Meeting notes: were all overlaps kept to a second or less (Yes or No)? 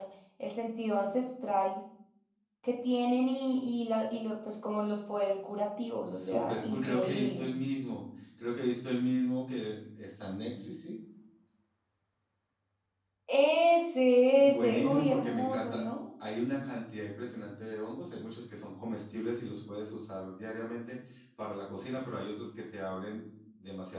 No